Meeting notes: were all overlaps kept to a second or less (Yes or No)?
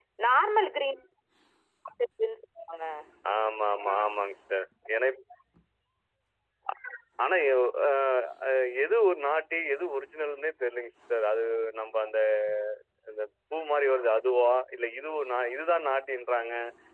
Yes